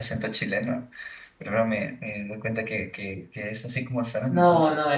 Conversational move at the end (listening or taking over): taking over